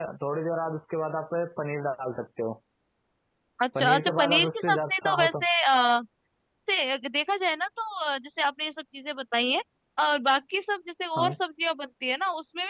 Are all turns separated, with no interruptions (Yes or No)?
No